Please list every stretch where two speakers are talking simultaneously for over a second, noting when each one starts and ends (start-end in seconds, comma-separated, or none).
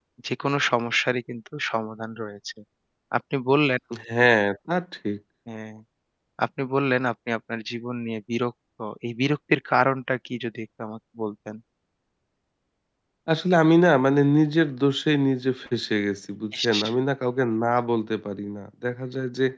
none